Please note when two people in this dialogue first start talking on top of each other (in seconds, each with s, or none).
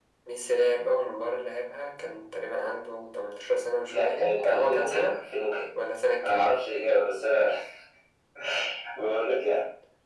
3.9 s